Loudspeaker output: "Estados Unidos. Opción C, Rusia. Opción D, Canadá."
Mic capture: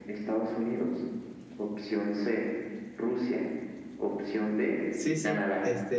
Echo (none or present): present